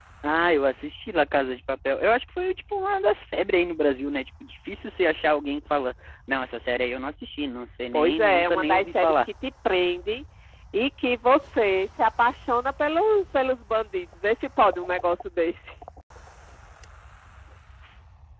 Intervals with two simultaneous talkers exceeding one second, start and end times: 7.9-9.1

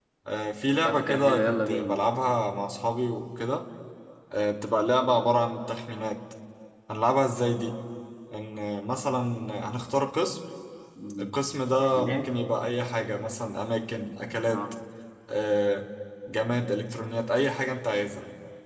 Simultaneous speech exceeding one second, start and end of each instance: 0.7-2.0

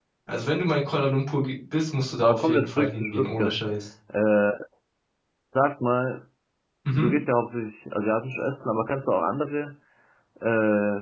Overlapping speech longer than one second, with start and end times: 2.2-3.6

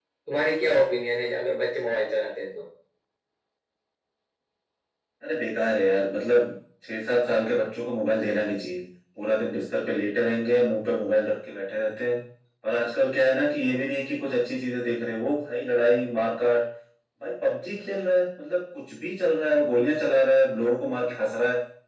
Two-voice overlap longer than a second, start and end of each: none

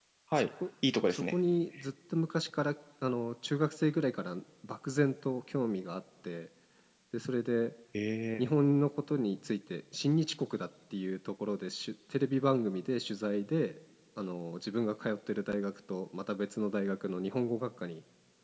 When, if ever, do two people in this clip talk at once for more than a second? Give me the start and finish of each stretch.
none

